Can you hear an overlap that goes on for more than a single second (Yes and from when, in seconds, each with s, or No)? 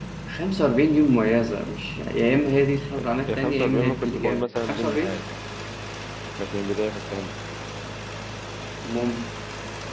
Yes, from 3.3 s